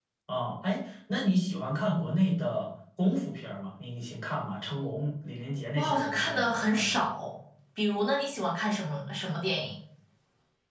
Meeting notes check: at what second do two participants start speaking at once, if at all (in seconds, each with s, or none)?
5.8 s